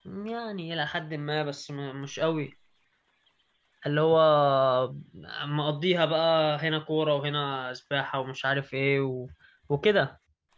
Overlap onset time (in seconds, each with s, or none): none